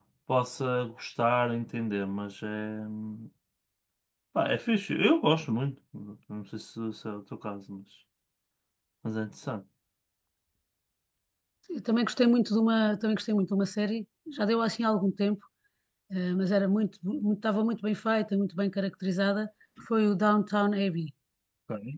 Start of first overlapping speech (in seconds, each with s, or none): none